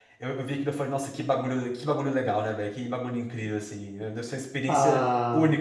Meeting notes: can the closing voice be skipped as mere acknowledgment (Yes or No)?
No